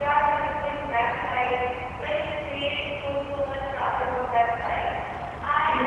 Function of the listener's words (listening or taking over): listening